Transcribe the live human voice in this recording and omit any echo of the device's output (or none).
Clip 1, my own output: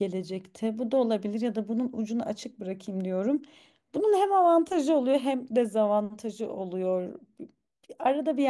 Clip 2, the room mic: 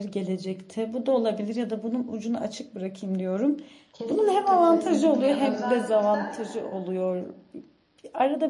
Kesinlikle kesinlikle. Özellikle